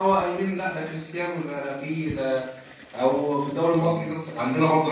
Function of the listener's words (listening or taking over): listening